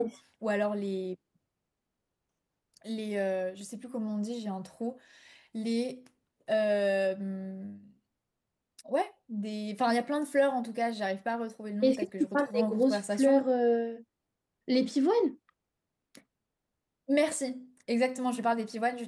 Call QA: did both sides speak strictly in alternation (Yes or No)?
No